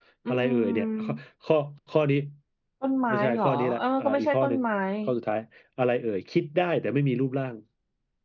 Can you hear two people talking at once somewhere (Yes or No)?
Yes